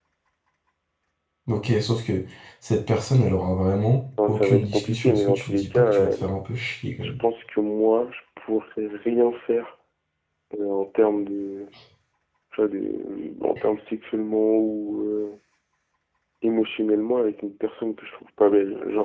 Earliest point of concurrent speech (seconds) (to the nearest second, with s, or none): 4 s